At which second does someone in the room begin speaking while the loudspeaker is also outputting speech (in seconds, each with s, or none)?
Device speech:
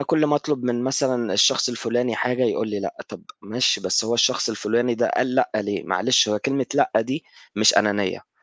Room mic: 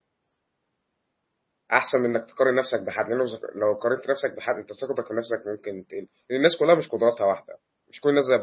1.7 s